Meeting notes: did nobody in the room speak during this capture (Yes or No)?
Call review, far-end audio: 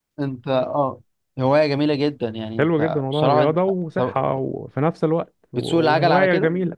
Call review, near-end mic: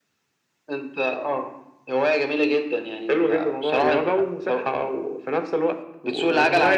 Yes